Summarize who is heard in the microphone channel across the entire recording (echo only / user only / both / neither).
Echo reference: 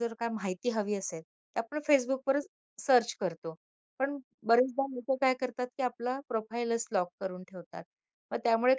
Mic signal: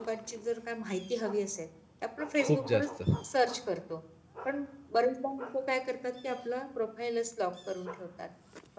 both